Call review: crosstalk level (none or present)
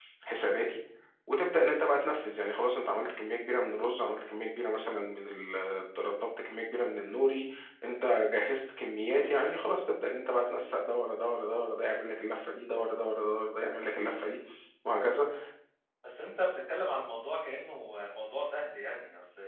none